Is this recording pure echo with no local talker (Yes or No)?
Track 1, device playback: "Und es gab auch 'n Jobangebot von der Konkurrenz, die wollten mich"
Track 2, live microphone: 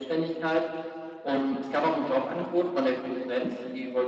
Yes